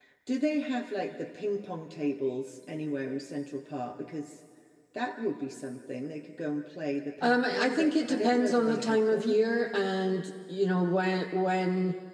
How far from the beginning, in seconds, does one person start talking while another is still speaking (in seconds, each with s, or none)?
7.2 s